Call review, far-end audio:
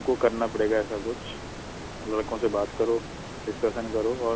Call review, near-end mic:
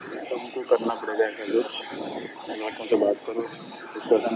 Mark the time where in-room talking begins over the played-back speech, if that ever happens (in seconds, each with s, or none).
none